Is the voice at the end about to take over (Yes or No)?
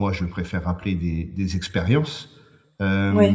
No